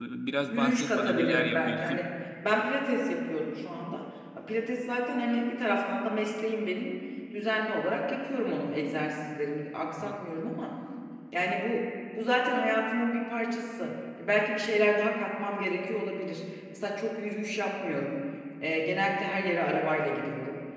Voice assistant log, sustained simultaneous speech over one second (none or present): present